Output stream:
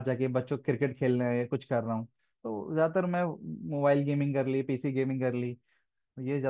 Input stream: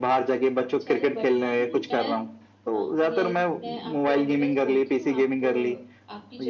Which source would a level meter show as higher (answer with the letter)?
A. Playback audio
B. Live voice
A